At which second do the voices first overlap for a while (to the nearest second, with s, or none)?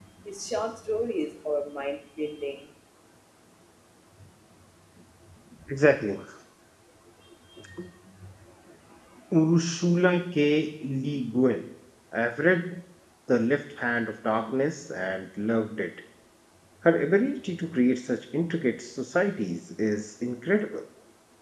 none